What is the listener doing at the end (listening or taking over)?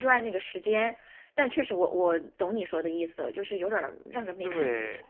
taking over